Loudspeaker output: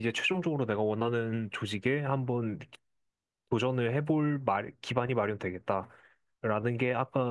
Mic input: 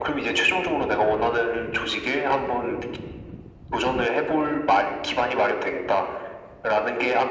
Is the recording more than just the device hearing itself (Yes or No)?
No